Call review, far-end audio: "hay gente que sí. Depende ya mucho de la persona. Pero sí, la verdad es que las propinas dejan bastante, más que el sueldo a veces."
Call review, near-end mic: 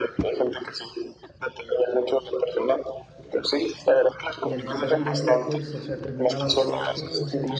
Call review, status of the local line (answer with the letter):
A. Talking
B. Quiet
A